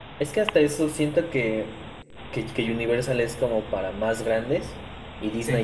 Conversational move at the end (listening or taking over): listening